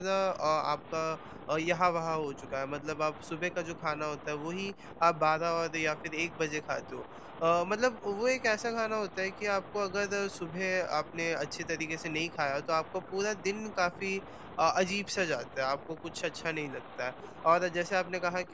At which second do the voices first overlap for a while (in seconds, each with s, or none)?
none